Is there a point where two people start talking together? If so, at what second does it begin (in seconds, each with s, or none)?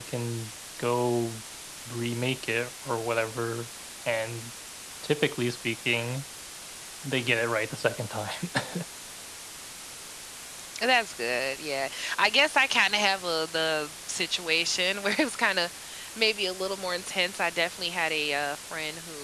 none